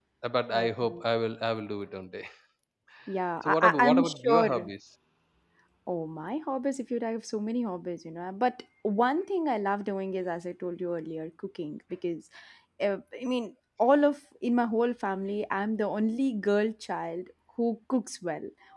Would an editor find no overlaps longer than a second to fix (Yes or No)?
No